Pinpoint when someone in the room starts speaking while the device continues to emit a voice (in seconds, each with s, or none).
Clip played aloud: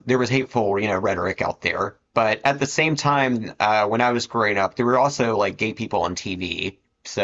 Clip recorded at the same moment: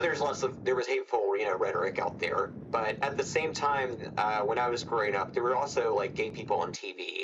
none